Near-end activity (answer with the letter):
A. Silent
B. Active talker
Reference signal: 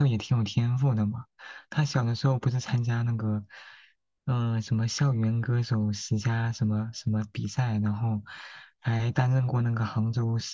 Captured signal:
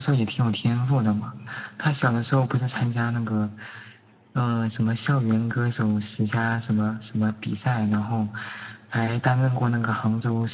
A